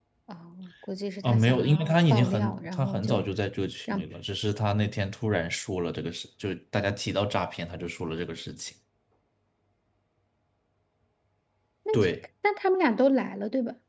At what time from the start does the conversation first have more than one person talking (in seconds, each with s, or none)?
1.2 s